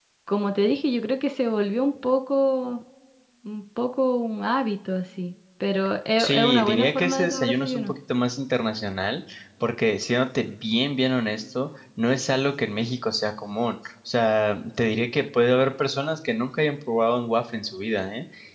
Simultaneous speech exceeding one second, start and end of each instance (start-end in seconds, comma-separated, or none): 6.2-7.9